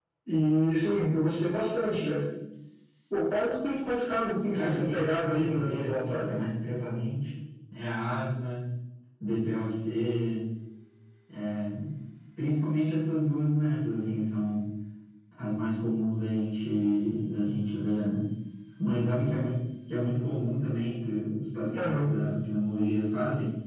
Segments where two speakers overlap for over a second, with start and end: 4.5-6.3

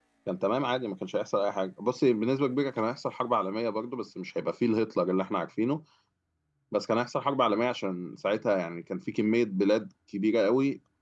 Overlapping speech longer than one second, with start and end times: none

